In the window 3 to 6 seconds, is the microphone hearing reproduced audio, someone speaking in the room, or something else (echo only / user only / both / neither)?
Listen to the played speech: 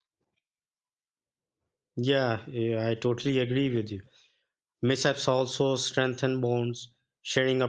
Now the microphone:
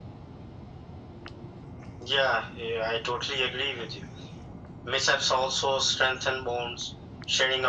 echo only